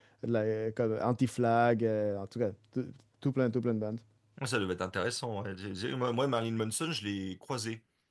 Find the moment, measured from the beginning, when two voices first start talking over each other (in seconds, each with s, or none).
none